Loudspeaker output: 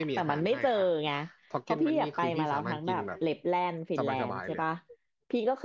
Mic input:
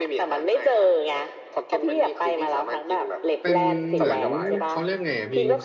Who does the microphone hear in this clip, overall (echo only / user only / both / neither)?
both